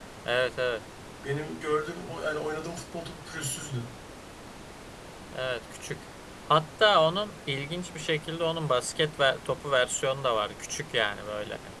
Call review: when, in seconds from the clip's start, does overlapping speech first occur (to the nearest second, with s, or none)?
none